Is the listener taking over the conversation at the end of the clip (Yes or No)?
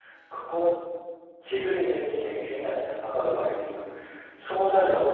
No